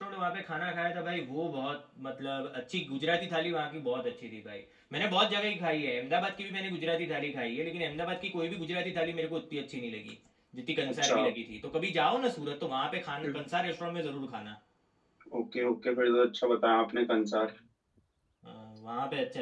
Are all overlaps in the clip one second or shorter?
Yes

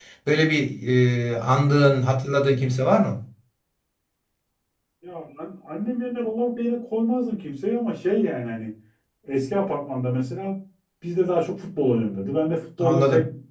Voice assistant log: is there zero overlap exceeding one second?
Yes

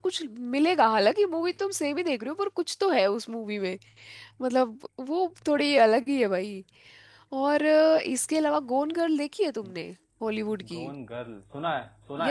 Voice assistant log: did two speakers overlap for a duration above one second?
No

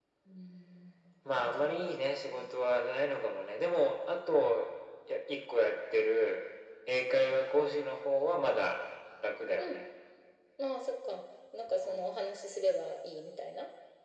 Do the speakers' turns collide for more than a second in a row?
No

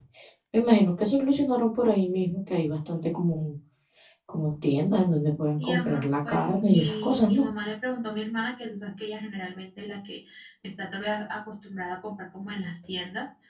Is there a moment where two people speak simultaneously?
Yes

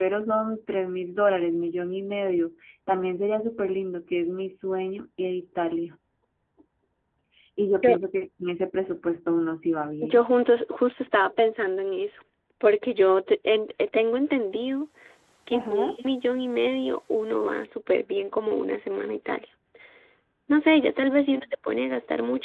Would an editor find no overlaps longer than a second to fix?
Yes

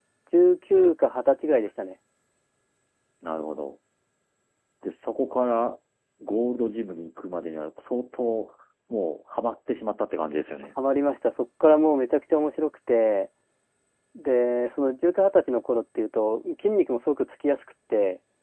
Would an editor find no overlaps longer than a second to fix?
Yes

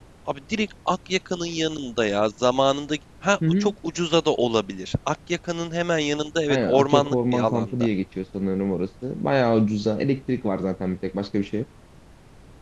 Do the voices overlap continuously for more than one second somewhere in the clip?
Yes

